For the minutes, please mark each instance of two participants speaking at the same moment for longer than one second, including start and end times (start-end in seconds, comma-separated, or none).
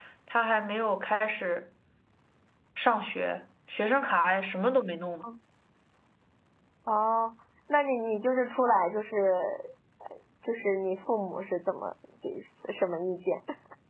none